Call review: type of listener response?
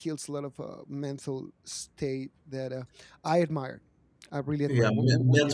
taking over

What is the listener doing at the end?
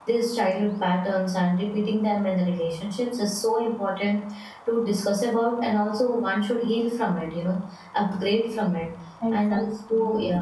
taking over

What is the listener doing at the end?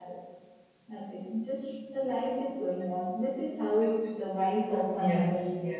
taking over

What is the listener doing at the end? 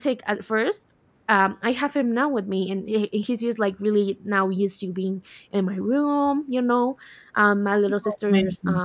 listening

